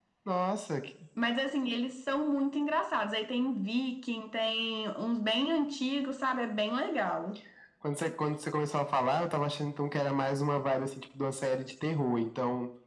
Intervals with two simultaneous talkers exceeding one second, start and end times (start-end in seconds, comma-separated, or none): none